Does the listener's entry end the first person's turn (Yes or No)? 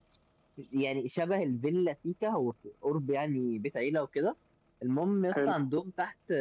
No